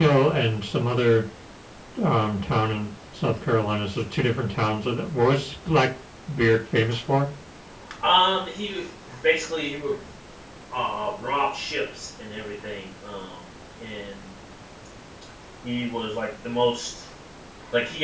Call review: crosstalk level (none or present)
none